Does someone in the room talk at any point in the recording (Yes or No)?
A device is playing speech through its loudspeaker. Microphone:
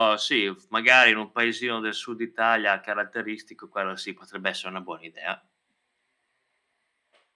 No